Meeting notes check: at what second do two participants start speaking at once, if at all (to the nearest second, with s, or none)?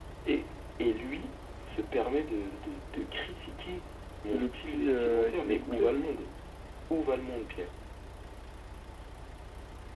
4 s